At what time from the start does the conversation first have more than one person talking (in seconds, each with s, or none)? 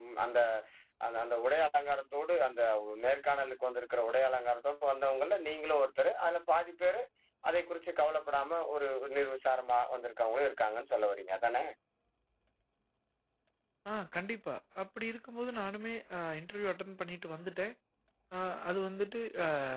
none